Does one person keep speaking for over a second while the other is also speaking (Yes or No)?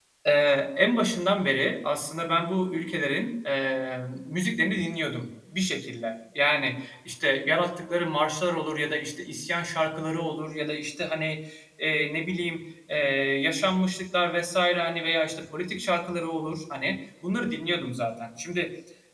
No